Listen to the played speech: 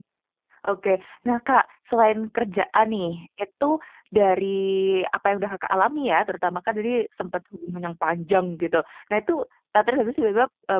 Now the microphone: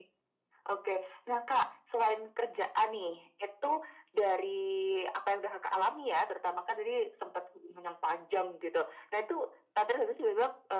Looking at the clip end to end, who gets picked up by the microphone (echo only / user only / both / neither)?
echo only